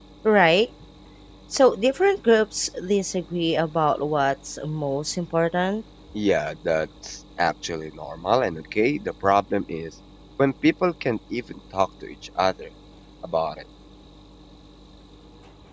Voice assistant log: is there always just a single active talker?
Yes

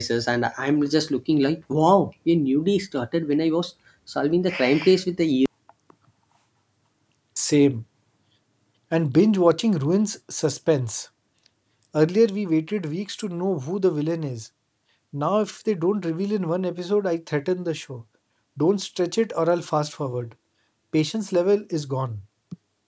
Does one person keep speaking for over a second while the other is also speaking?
No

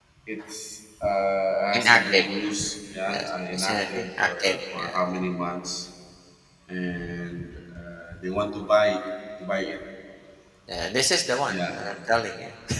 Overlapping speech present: Yes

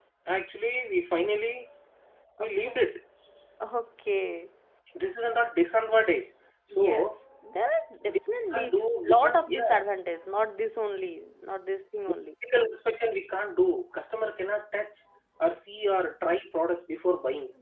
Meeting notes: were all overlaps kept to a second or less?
No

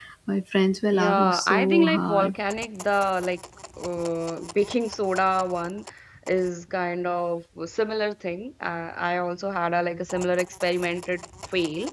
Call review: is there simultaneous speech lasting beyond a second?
Yes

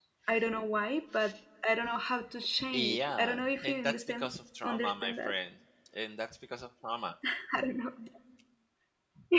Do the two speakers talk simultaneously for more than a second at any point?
Yes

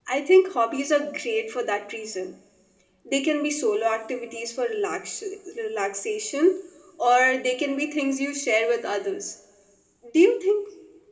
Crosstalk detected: No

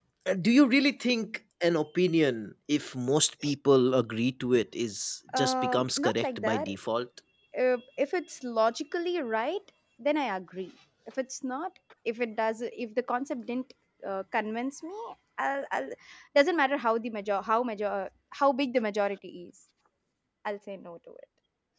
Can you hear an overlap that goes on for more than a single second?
Yes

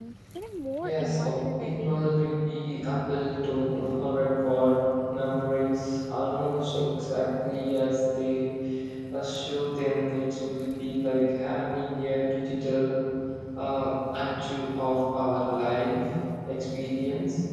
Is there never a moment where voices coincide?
No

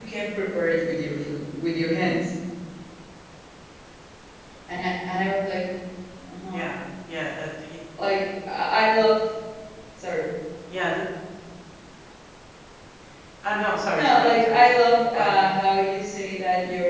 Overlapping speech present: Yes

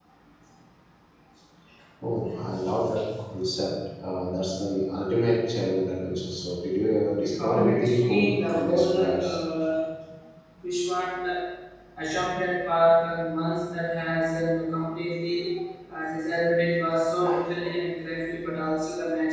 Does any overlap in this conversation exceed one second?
Yes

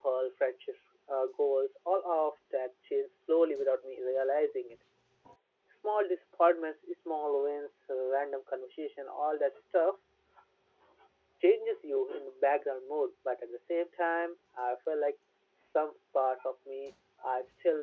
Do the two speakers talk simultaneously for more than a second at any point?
No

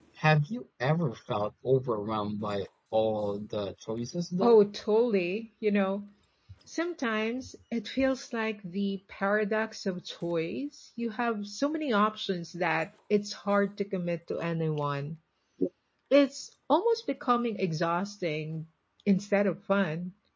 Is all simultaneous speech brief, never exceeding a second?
Yes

